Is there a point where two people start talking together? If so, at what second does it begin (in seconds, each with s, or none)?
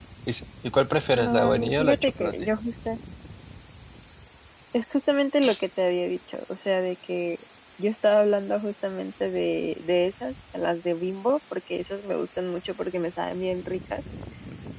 1.2 s